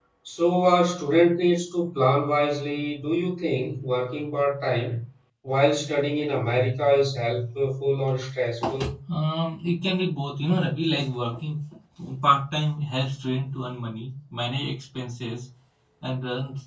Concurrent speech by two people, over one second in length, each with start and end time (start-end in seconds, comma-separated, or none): none